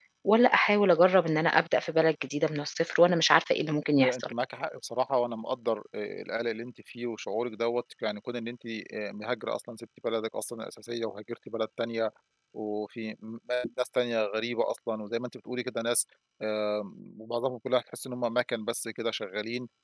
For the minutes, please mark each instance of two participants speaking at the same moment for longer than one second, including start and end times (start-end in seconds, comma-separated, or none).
none